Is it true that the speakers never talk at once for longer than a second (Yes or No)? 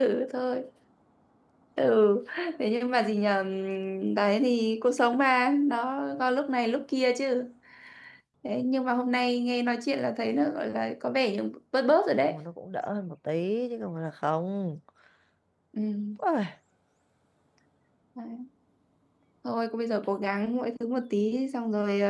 Yes